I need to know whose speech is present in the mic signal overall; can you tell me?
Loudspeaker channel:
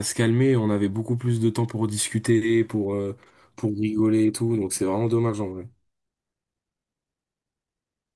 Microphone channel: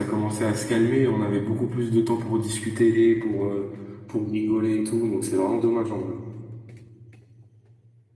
echo only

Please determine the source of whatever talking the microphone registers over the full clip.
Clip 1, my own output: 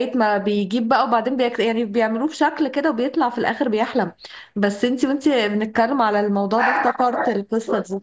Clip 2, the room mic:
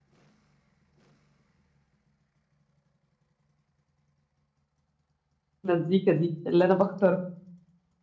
user only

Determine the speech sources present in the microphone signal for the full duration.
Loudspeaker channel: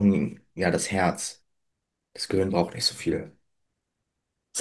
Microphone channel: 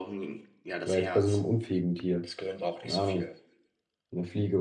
both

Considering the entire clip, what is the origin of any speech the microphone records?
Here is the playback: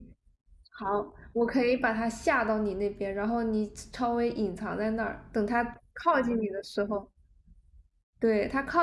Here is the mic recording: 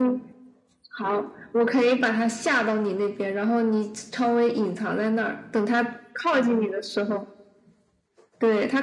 echo only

